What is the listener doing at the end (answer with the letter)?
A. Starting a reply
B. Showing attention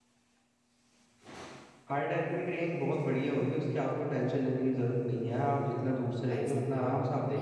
A